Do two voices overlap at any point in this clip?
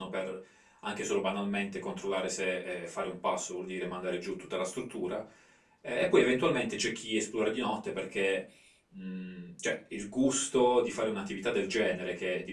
No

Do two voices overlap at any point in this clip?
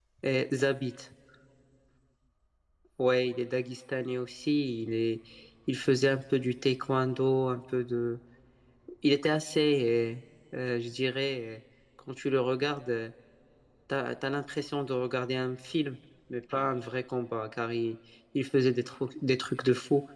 No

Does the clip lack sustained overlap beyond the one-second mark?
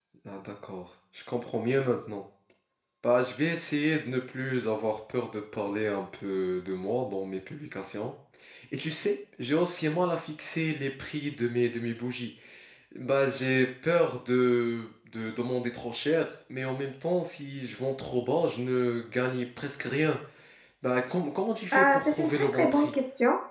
No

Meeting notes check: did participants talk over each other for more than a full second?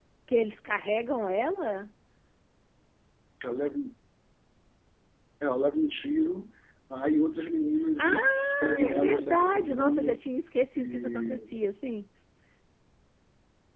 Yes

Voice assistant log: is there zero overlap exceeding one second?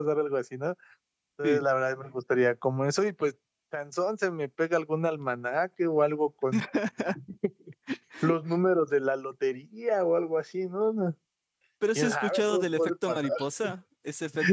No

